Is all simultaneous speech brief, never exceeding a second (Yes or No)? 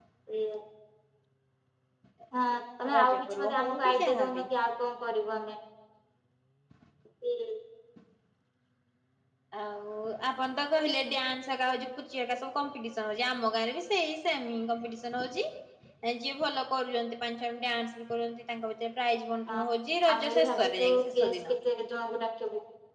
No